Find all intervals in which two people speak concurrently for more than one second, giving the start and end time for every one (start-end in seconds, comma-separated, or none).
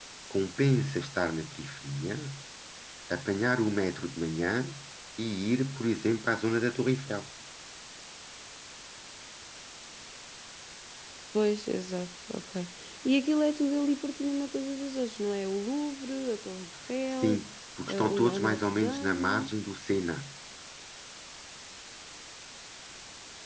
17.9-19.5